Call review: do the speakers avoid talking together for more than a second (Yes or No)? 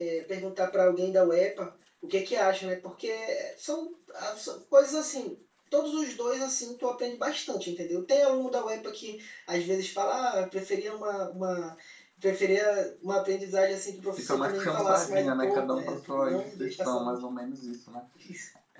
No